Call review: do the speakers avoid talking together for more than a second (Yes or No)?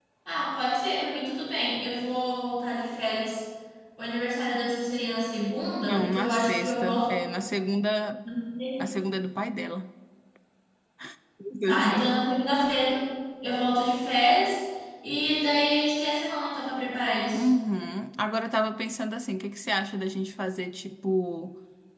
No